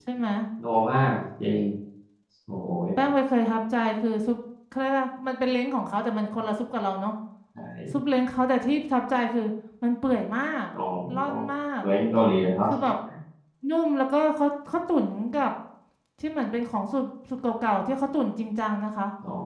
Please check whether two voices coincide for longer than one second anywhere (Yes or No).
No